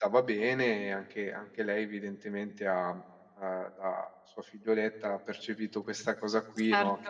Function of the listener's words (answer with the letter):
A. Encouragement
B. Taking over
A